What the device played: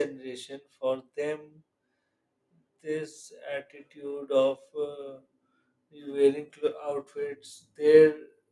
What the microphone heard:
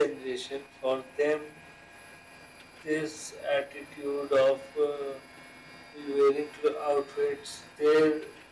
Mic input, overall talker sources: echo only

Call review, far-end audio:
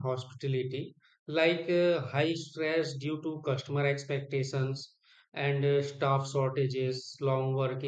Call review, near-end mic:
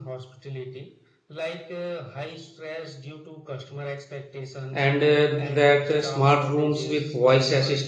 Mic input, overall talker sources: both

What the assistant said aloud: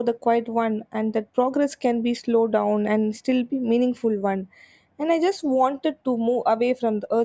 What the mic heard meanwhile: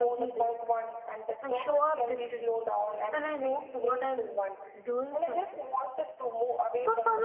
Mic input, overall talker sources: both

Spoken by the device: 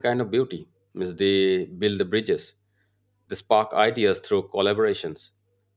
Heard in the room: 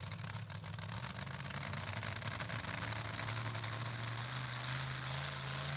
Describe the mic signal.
neither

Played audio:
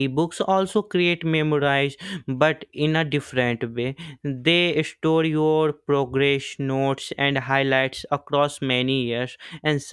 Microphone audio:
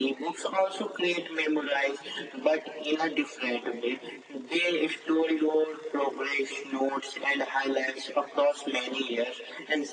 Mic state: echo only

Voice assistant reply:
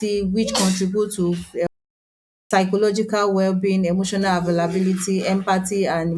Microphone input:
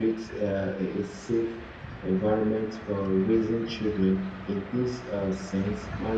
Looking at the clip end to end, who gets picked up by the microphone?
user only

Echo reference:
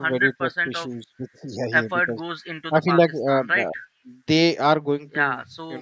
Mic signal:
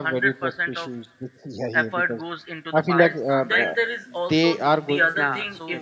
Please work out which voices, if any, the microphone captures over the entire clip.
both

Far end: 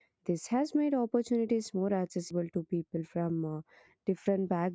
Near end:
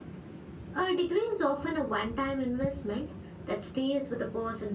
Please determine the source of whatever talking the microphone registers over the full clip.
user only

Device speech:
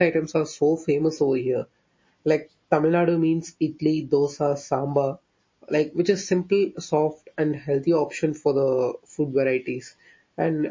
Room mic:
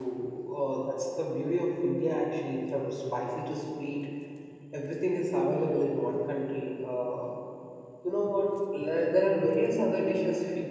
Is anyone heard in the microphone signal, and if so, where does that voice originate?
user only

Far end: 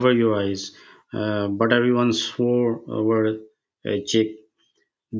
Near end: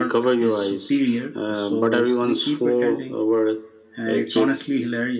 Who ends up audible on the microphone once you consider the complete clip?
both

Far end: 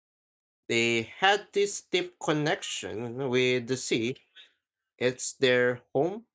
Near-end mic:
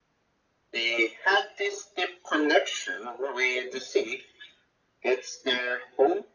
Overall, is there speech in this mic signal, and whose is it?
echo only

